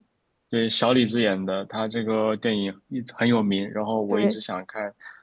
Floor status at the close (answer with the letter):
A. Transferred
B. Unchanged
B